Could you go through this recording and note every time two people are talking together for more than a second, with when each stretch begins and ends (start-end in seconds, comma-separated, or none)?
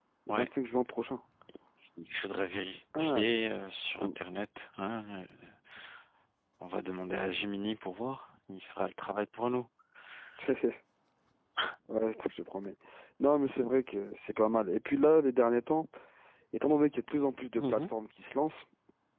none